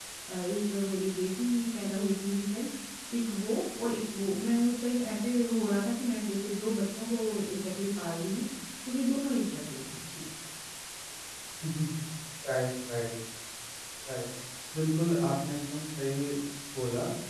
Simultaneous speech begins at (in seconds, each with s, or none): none